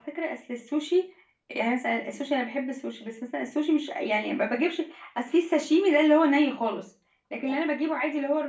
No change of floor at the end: Yes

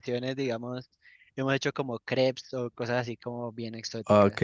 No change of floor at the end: No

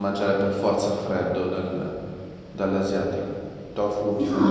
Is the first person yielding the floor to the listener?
Yes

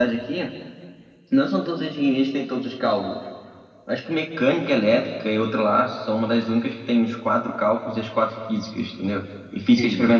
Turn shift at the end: No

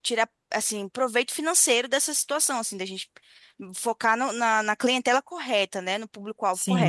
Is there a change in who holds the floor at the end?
Yes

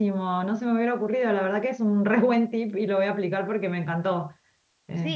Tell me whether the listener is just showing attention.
No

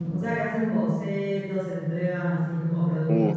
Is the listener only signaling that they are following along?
No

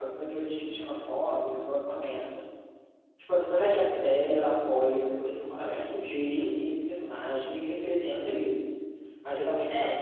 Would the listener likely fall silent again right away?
Yes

